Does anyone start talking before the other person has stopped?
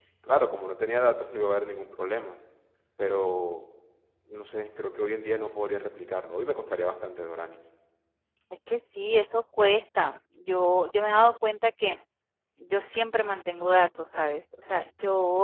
No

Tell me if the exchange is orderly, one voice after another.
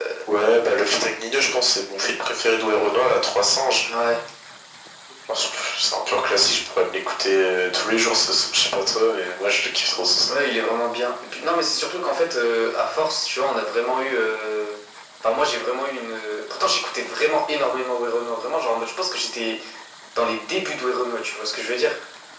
Yes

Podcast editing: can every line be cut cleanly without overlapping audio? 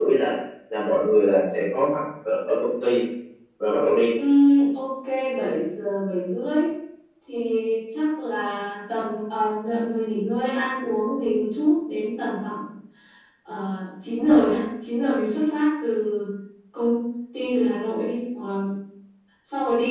Yes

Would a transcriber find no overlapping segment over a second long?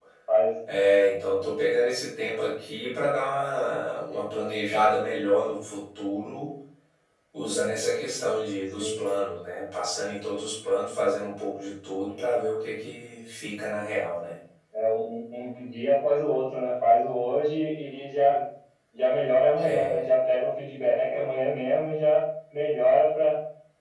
Yes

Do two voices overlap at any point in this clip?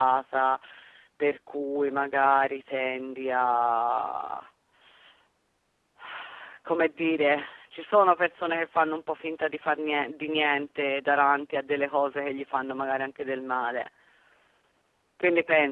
No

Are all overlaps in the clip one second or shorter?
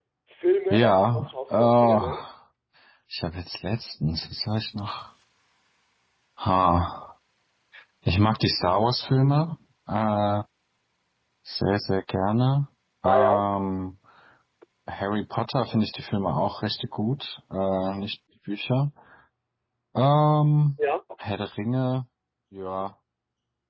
No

